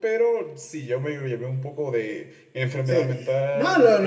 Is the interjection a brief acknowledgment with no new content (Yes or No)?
No